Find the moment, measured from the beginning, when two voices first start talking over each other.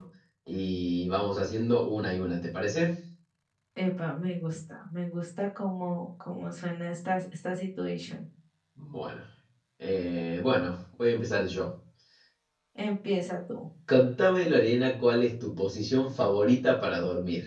none

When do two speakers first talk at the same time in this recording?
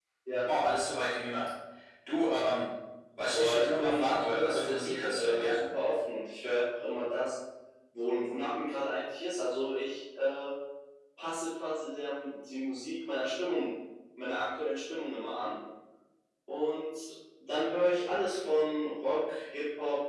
3.3 s

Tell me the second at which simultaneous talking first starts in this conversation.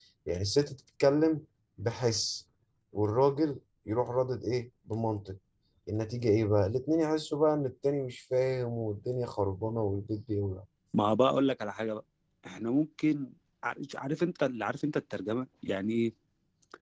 none

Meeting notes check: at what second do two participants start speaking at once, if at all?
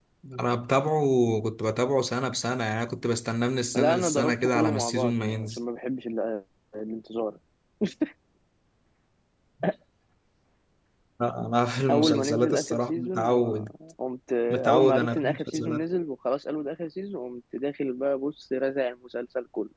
3.7 s

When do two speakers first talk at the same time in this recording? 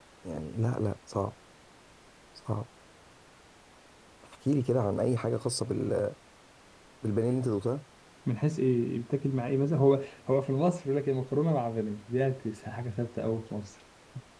none

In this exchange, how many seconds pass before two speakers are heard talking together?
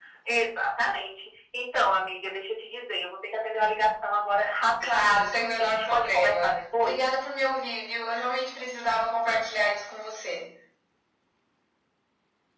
4.8 s

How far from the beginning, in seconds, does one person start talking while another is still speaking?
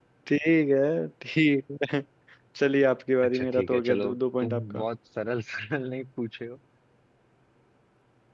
3.2 s

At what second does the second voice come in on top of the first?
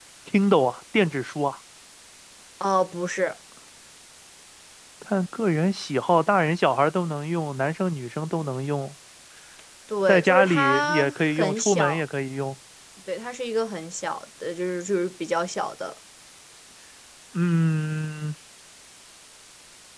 10.1 s

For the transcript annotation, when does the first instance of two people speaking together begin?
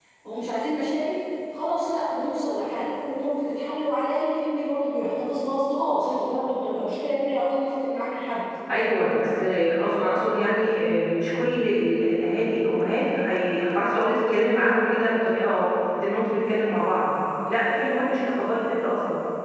none

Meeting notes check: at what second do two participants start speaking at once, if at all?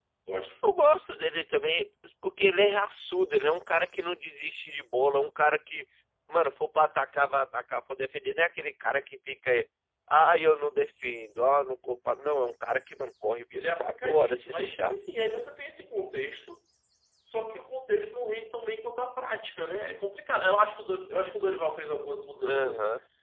13.5 s

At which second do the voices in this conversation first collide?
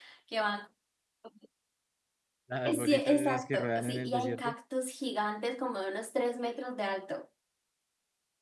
2.8 s

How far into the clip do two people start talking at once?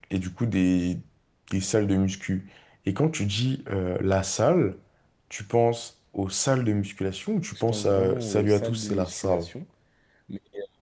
7.5 s

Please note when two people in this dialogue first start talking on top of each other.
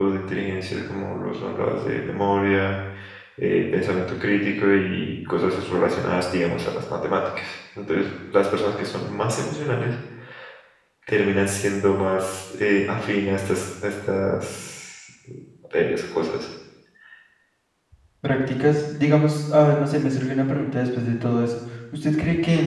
none

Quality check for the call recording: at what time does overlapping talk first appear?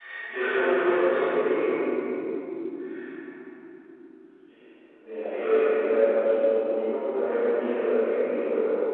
none

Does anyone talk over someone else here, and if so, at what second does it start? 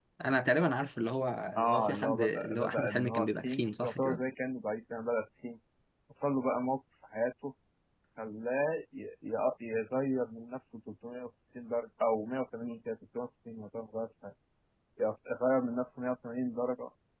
1.6 s

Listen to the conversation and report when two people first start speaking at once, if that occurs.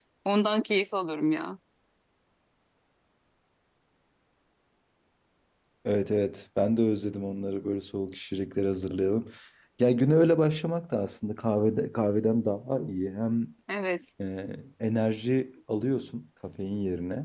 none

